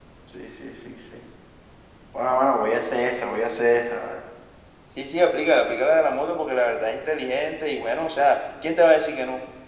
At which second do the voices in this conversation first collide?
none

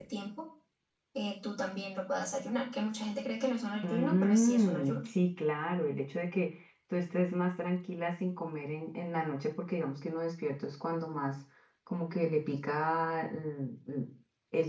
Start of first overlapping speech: 3.7 s

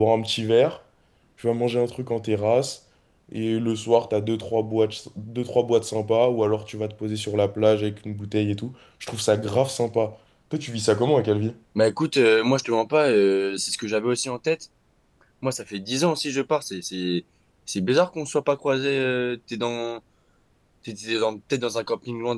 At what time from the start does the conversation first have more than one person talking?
none

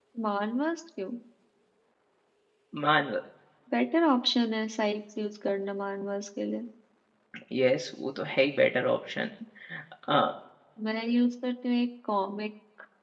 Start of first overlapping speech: none

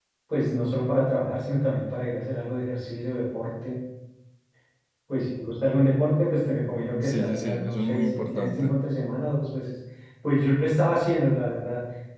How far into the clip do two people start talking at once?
7.0 s

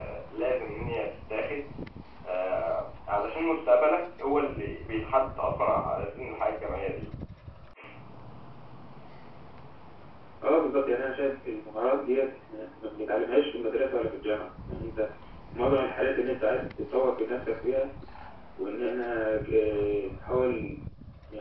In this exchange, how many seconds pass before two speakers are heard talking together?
none

